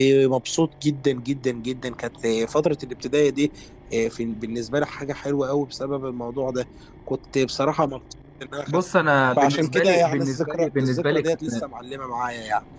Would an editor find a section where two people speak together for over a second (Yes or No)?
Yes